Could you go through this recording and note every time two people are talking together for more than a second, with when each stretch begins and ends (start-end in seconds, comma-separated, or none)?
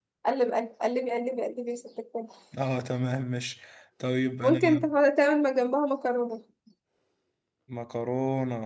none